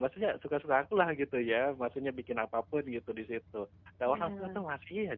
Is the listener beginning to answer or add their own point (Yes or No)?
No